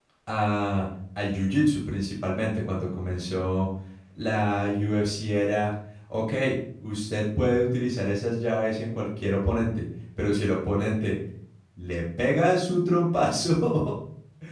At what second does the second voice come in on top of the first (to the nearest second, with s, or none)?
none